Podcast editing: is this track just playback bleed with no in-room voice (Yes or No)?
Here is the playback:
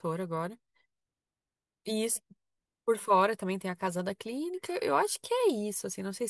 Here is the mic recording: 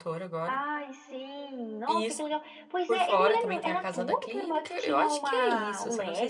No